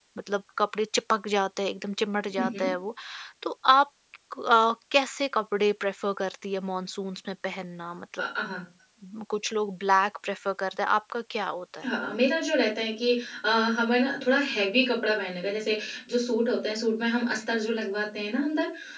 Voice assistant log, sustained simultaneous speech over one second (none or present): none